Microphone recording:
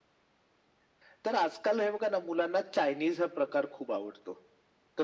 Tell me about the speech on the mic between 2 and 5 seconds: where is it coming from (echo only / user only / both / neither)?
echo only